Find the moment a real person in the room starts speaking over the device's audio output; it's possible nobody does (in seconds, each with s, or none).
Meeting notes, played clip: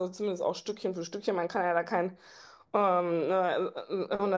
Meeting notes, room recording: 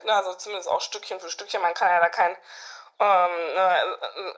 none